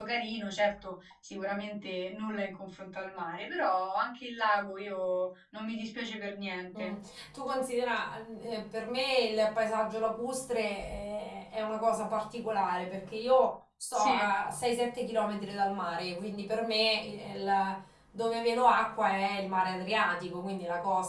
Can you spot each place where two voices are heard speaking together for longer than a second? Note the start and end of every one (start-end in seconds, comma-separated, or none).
none